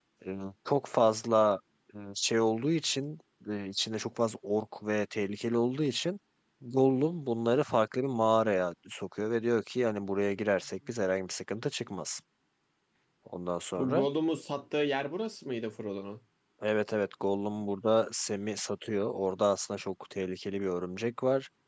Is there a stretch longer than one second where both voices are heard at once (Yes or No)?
No